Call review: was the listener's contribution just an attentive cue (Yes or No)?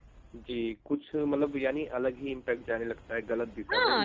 No